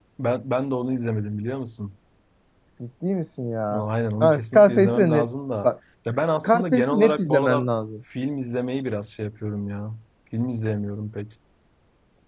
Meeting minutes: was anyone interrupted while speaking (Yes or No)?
Yes